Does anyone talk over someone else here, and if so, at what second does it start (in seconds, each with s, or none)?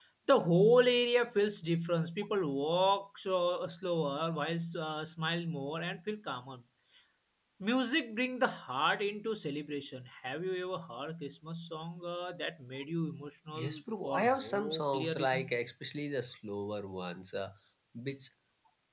13.5 s